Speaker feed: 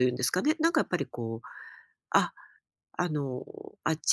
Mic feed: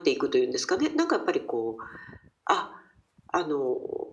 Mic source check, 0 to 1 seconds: echo only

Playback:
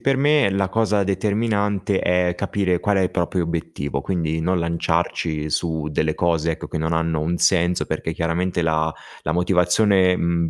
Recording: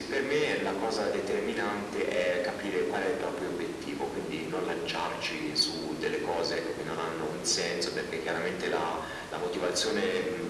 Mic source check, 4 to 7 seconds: echo only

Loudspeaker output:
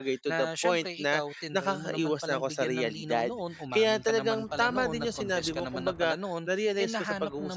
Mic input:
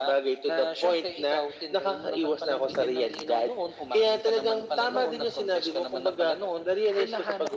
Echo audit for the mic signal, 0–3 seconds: echo only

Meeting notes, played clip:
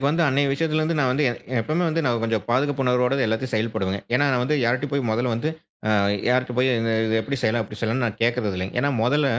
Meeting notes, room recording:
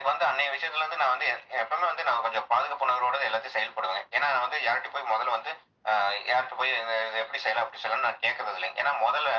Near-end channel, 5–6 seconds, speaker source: echo only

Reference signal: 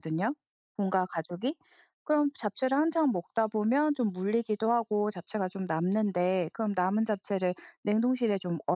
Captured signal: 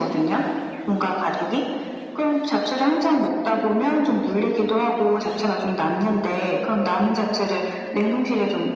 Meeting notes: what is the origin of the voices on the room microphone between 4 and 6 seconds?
echo only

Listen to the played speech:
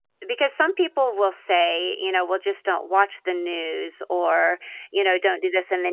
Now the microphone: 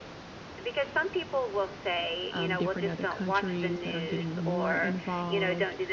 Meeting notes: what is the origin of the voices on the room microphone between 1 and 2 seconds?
echo only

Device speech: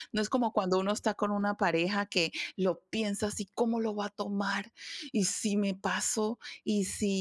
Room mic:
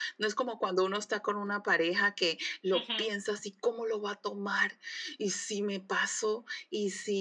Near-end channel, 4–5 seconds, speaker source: echo only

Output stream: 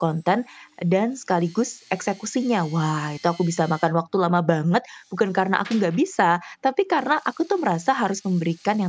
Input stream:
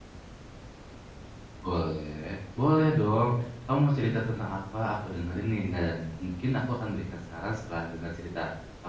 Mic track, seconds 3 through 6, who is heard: user only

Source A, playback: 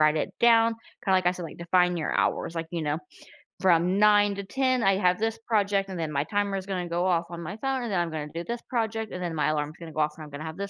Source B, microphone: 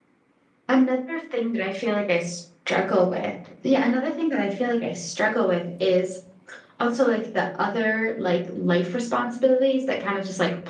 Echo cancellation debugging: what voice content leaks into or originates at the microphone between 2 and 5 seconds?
user only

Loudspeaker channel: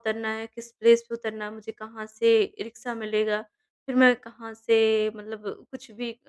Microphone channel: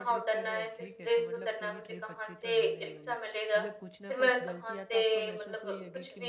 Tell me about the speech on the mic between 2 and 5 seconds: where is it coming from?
both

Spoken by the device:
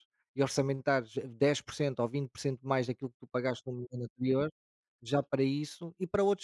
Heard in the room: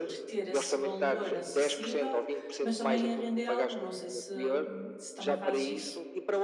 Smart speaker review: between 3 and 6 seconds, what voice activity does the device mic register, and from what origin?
both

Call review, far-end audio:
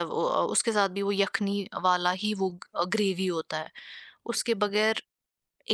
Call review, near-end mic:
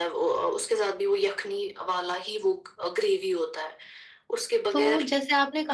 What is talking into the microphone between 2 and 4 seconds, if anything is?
echo only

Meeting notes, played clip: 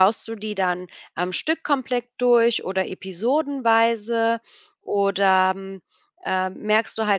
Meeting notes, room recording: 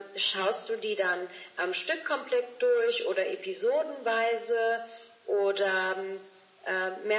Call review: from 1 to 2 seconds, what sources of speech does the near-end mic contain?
echo only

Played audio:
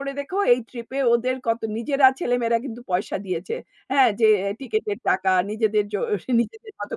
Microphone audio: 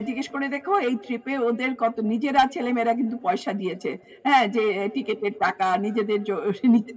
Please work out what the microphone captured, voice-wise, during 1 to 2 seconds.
echo only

